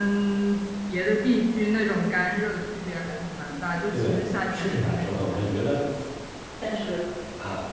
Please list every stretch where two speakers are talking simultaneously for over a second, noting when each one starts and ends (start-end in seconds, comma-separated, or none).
3.9-5.8